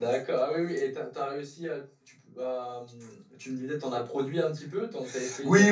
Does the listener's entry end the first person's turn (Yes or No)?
Yes